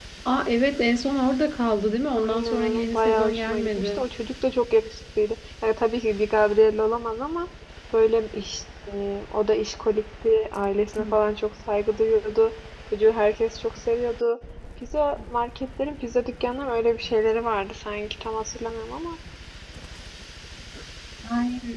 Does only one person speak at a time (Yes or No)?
No